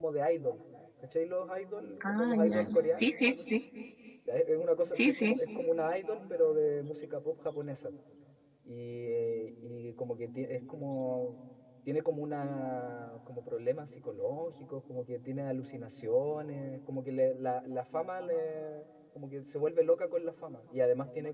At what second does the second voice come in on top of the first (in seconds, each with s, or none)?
2.1 s